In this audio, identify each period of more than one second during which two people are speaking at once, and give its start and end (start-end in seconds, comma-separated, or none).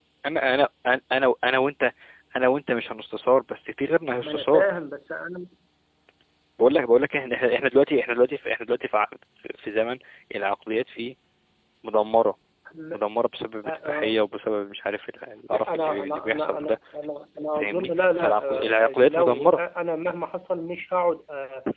15.5-16.8, 17.5-19.6